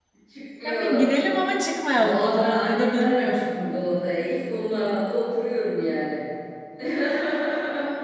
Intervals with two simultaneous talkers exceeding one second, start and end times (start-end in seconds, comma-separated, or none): 2.0-3.6